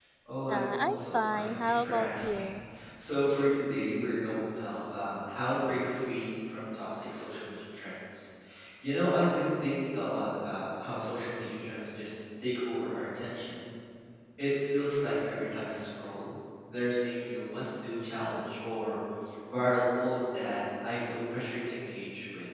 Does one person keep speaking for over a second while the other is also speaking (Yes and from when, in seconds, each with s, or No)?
Yes, from 0.5 s